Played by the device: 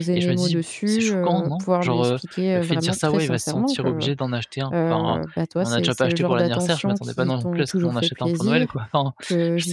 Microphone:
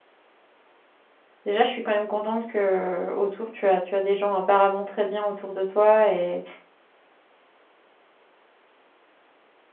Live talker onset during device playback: 1.4 s

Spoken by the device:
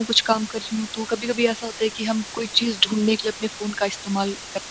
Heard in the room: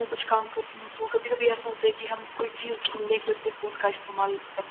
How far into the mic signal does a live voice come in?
none

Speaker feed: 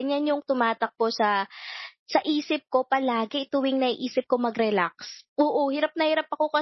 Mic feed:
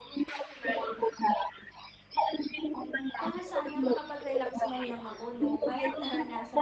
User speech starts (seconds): 3.2 s

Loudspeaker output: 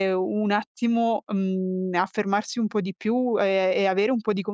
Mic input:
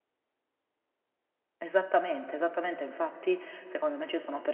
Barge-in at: 1.6 s

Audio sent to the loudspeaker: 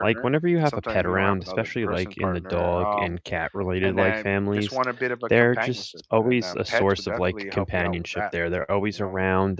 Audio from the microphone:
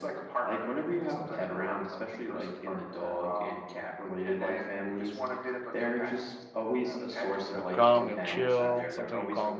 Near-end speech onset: 7.5 s

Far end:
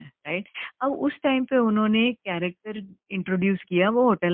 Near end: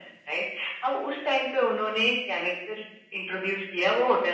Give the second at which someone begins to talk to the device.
none

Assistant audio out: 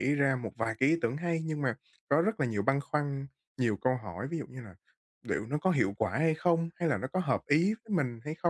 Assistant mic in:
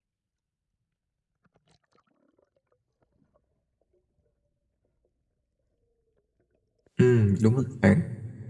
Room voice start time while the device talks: 7.0 s

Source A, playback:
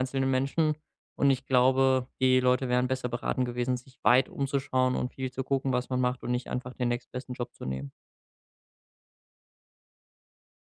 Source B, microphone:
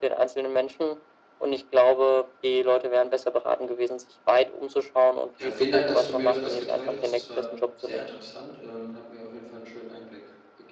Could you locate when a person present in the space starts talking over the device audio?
5.4 s

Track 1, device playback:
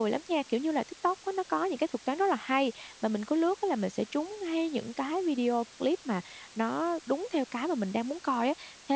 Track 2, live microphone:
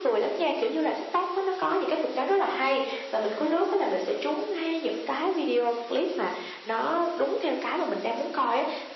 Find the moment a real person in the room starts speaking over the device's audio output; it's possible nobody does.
none

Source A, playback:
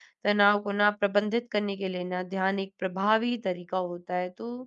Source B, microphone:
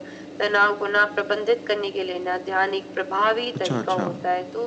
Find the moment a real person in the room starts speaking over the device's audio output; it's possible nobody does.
3.5 s

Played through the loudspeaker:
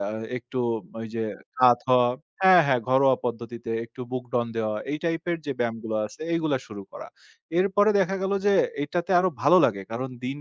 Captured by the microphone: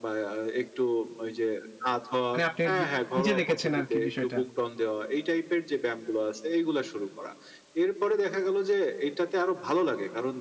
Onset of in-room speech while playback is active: 2.3 s

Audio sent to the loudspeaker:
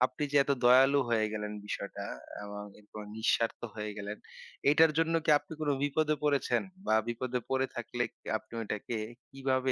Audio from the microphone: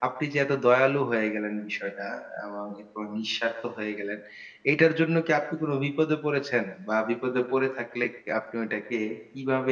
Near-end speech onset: none

